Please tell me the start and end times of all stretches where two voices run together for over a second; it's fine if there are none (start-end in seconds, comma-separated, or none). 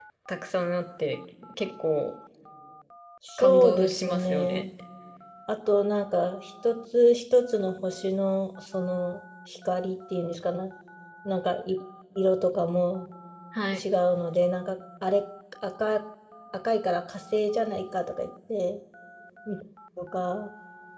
3.4-4.6